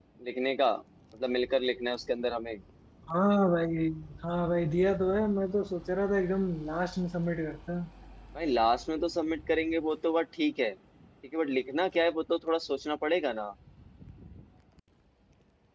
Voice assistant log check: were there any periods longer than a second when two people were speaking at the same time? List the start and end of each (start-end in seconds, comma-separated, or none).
none